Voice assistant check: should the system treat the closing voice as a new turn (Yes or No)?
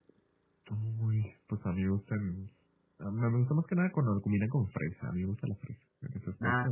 Yes